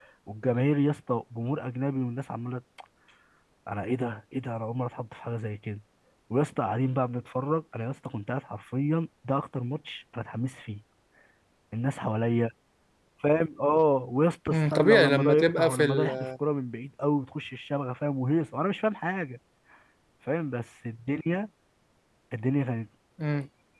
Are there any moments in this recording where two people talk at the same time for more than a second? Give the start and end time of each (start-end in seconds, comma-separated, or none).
14.5-16.3